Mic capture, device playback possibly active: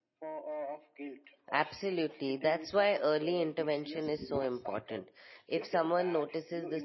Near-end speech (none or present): present